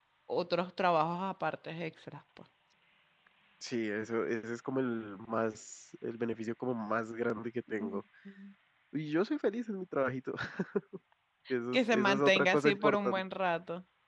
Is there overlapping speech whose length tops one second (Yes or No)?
Yes